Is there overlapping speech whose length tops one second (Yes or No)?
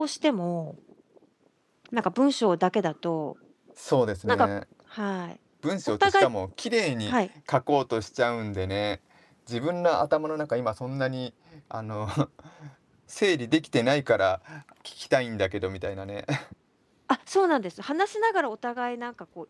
No